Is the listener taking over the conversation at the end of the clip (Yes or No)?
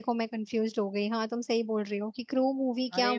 Yes